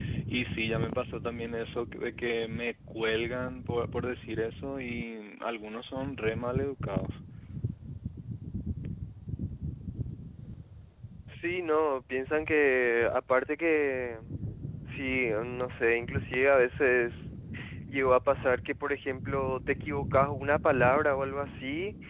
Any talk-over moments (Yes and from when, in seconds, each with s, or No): No